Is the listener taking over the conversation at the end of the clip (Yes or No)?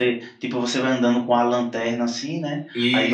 No